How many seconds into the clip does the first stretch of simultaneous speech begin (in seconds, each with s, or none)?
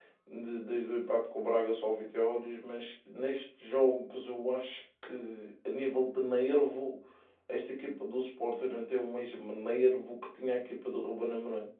none